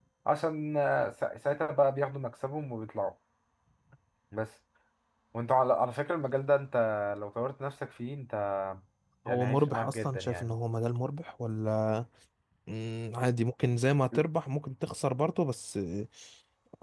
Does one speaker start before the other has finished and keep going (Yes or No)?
Yes